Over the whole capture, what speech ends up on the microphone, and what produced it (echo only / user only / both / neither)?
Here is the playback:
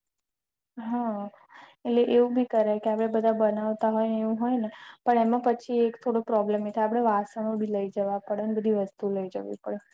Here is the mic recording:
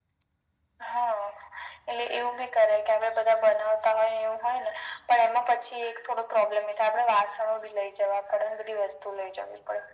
echo only